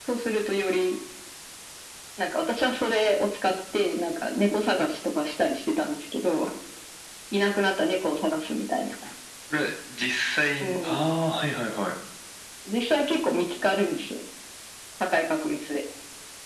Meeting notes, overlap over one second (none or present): none